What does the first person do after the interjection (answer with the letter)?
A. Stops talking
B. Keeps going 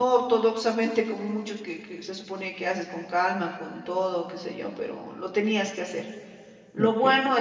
B